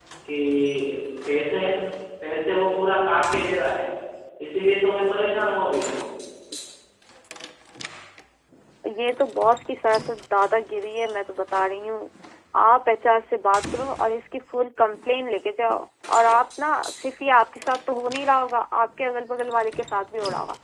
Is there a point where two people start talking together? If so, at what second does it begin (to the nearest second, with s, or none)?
none